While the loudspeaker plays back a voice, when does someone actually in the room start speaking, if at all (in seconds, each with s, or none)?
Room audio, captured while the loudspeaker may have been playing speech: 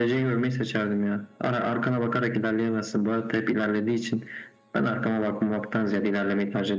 none